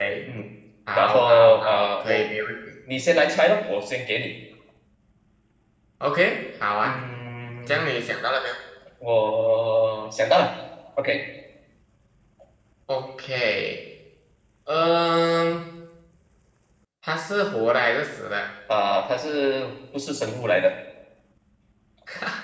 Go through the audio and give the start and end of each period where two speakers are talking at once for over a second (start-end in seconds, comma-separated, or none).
0.9-2.2